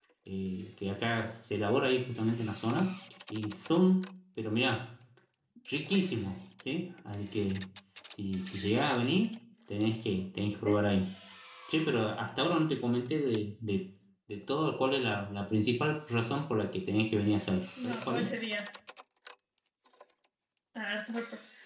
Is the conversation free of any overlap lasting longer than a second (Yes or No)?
Yes